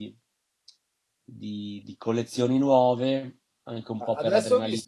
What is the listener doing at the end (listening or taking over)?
taking over